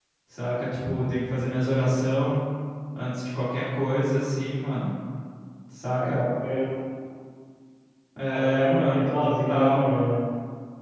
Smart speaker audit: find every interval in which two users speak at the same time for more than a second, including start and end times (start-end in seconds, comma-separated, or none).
8.3-9.8